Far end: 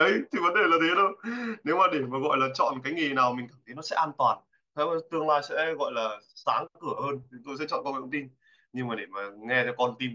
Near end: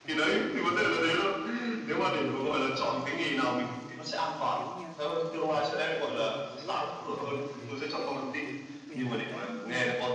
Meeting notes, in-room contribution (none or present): present